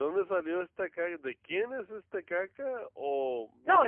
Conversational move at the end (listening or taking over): taking over